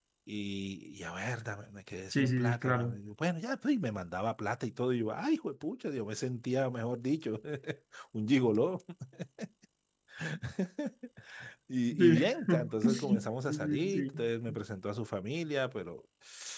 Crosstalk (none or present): present